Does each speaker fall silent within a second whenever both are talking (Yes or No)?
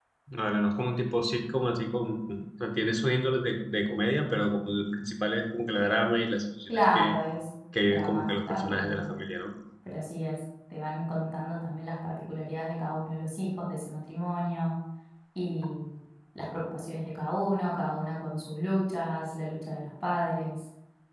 No